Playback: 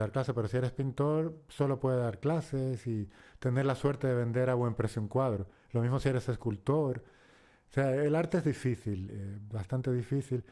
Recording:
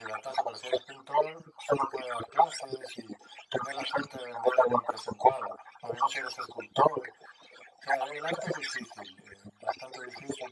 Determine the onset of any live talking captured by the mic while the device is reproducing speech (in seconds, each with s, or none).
none